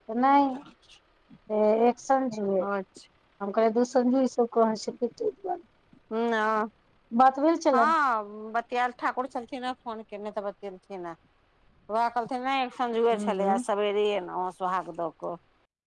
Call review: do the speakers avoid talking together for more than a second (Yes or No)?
Yes